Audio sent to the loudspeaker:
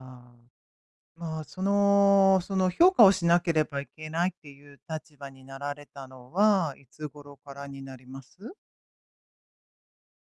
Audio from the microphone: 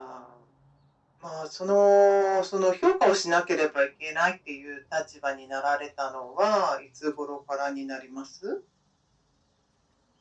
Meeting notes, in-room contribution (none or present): none